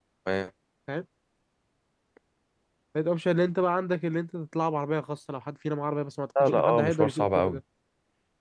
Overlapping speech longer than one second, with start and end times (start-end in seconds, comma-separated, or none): 6.4-7.6